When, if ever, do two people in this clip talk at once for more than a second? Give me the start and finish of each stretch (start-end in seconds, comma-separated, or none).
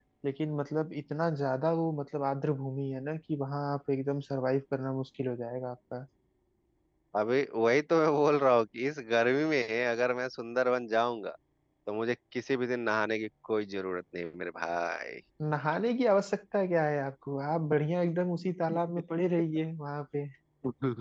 none